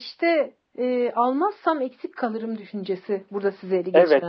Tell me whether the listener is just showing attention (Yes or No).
No